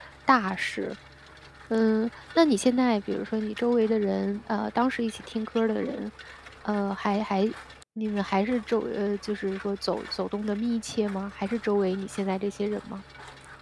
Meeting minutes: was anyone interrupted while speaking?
No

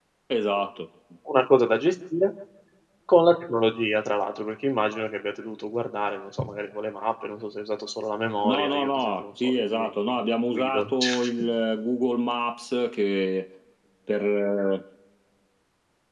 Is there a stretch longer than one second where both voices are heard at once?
Yes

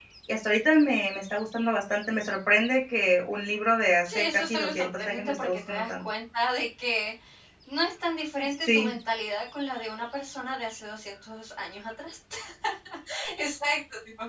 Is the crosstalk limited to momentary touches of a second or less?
No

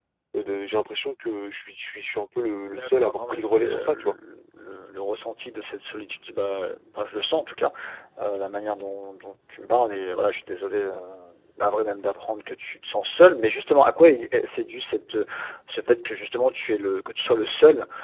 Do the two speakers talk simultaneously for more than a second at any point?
Yes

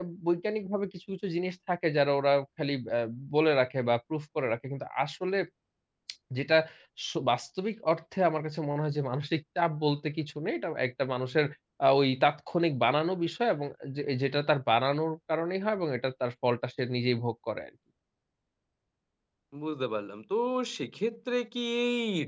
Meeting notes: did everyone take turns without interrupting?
Yes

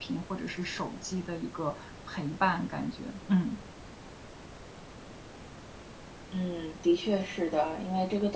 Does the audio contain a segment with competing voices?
No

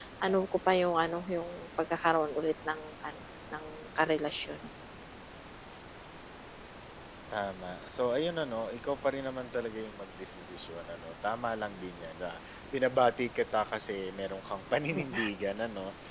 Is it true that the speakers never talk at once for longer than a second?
Yes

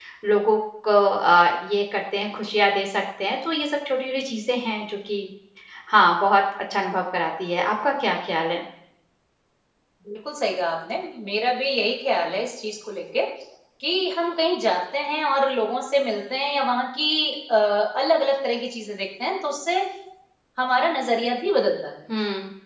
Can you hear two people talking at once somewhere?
No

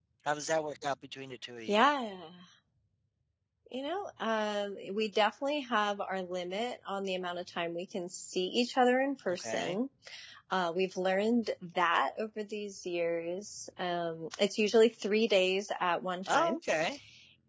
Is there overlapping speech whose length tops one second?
No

